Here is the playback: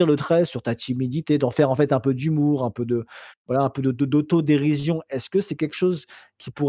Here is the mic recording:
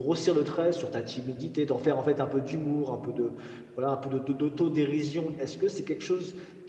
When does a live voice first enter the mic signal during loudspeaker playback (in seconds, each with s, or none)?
none